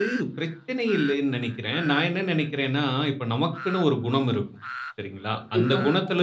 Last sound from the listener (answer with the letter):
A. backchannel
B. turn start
A